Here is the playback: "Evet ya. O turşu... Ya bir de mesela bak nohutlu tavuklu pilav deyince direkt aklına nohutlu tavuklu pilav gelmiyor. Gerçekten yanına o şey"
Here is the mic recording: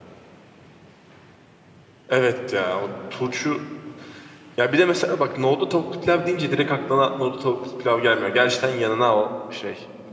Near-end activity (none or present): none